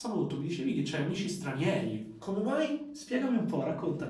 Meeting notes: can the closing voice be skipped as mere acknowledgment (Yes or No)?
No